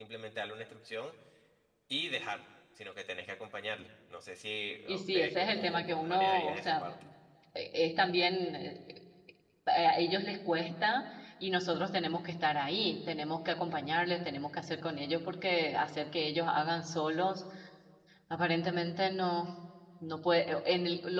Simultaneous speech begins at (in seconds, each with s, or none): 4.9 s